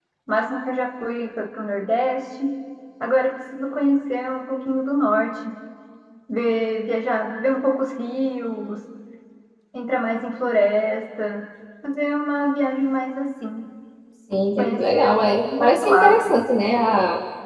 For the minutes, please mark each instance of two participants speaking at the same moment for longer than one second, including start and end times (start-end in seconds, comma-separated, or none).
14.6-16.3